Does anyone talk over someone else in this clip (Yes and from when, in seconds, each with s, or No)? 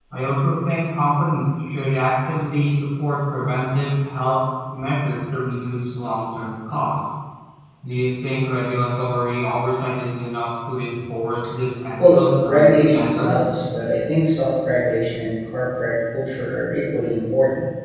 Yes, from 12.0 s